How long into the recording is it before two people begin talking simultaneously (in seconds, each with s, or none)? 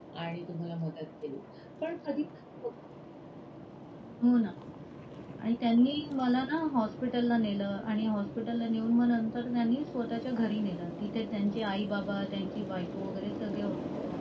none